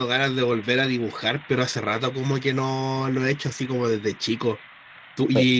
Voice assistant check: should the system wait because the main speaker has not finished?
Yes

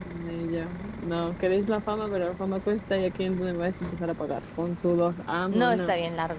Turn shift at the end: Yes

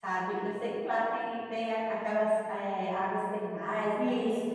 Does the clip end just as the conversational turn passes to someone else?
Yes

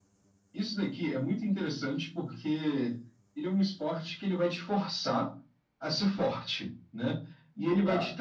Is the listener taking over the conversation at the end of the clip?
No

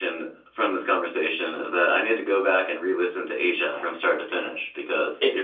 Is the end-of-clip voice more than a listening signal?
Yes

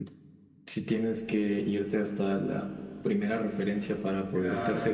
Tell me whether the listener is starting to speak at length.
No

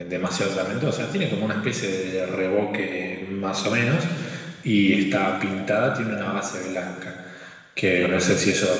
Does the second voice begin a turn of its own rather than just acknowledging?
No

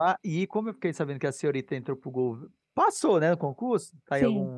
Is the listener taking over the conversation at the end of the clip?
No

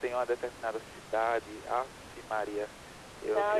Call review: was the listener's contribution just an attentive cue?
No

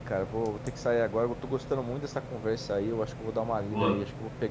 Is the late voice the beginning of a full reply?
No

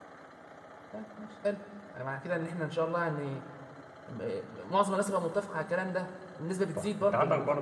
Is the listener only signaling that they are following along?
No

